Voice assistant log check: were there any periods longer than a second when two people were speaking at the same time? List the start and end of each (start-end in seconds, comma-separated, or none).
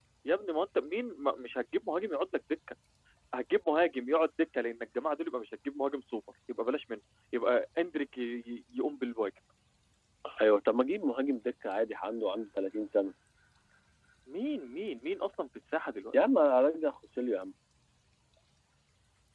none